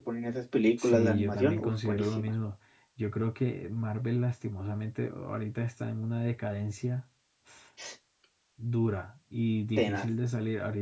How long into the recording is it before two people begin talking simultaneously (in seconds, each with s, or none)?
0.8 s